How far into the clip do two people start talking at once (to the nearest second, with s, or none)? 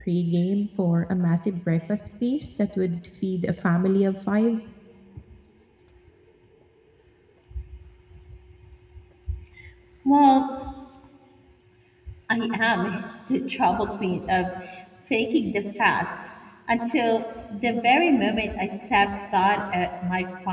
none